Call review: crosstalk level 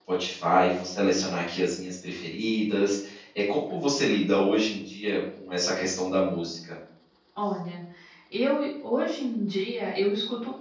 none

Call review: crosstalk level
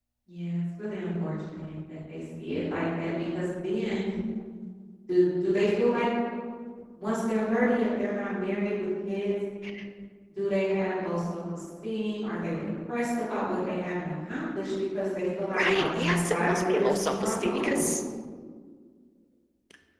present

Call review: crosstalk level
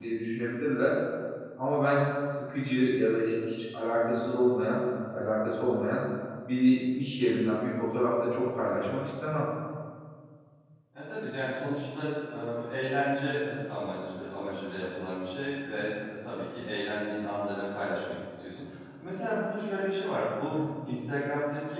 none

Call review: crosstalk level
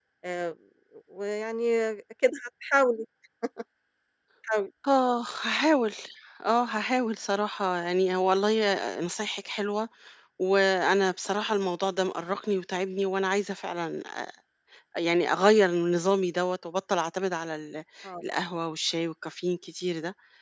none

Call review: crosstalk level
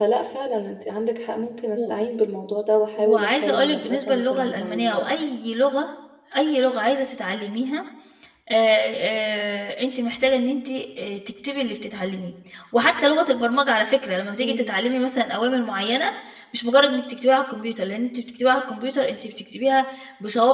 present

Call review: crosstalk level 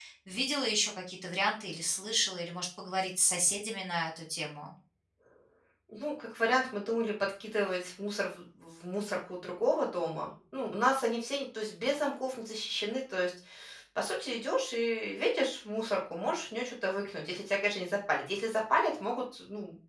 none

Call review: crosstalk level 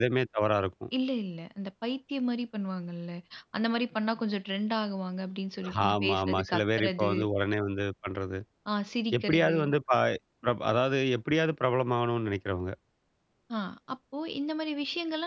present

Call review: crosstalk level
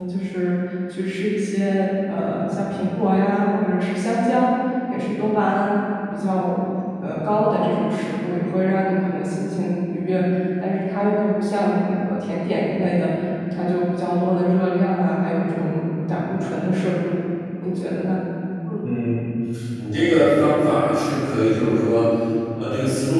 none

